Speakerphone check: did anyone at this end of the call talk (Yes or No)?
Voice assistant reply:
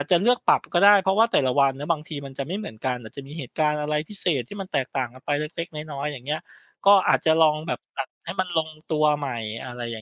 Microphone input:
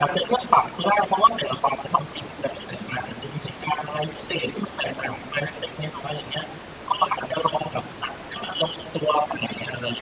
No